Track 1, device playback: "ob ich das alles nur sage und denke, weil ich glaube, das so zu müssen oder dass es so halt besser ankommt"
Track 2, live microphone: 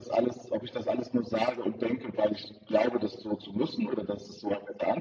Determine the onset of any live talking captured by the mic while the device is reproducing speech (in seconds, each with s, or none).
none